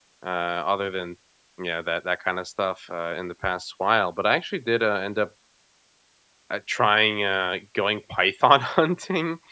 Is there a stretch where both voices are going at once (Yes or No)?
No